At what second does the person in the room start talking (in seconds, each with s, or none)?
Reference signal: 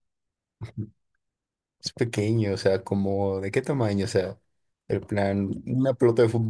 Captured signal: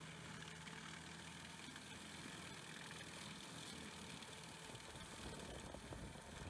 none